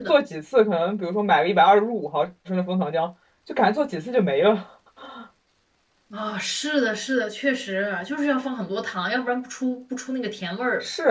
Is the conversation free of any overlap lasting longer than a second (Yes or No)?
Yes